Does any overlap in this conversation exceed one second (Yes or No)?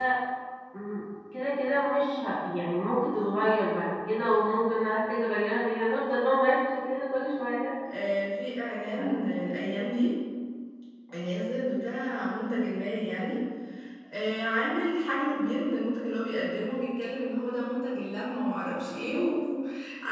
No